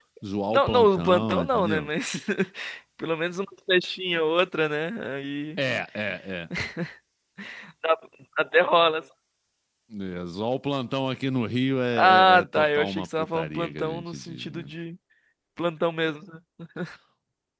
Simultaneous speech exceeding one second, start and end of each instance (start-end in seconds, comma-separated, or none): 0.5-1.9, 11.9-14.7